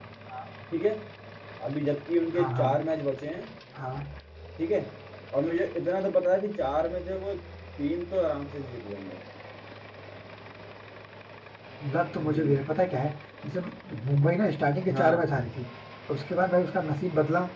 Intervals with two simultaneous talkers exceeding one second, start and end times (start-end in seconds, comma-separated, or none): none